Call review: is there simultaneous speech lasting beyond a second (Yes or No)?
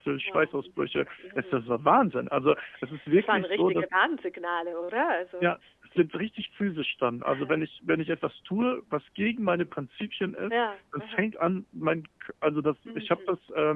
Yes